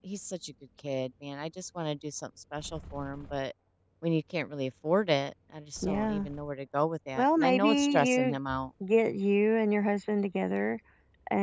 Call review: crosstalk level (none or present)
present